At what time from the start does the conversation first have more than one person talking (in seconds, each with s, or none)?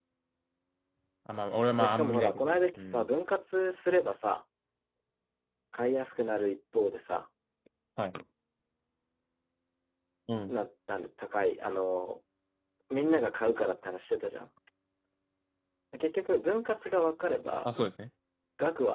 1.8 s